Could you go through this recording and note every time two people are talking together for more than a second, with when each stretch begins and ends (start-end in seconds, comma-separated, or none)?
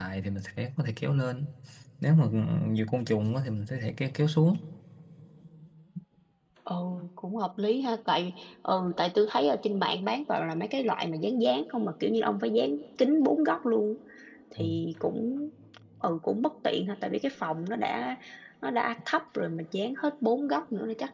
none